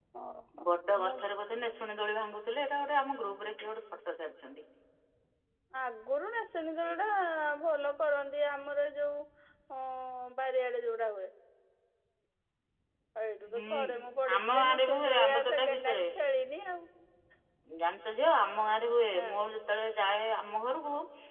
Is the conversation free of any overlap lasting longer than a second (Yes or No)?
No